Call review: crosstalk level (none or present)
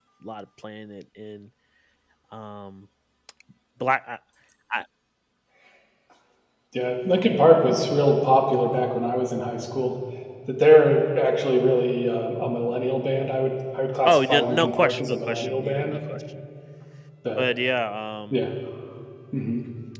present